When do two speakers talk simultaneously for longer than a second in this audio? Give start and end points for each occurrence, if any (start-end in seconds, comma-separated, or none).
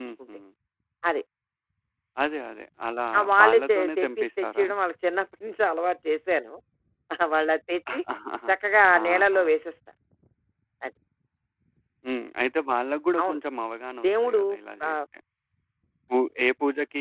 3.2-4.7